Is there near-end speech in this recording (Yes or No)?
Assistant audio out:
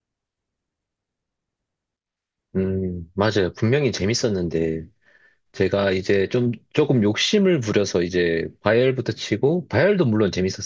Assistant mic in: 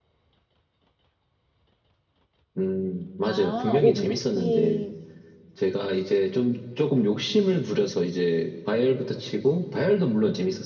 Yes